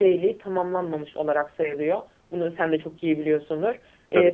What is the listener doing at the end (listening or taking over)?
listening